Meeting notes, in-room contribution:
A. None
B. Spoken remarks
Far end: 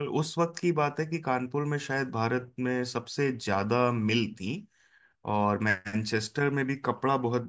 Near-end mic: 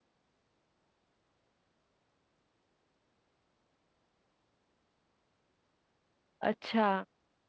B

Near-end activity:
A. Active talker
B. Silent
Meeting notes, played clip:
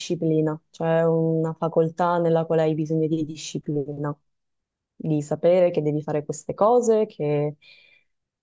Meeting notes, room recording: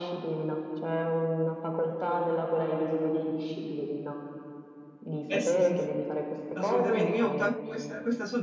A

